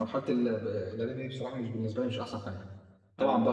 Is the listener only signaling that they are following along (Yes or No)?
Yes